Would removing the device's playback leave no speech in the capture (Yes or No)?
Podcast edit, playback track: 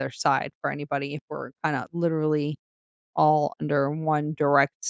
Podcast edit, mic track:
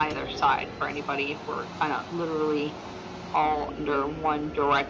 Yes